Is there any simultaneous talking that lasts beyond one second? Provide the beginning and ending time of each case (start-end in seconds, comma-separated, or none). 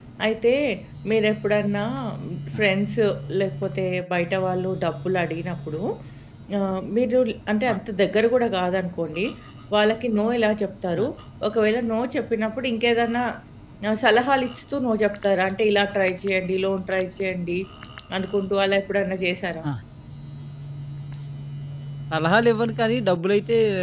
none